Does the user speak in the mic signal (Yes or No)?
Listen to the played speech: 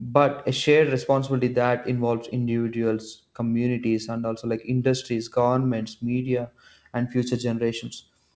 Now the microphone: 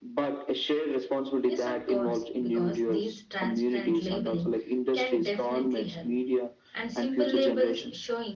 Yes